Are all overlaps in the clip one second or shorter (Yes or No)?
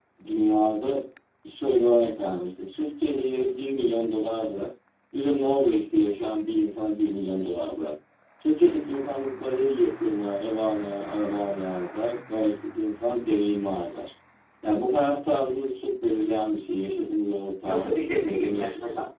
No